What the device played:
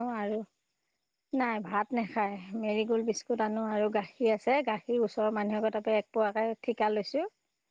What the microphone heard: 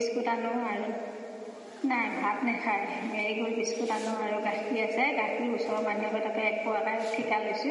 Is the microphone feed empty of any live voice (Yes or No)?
Yes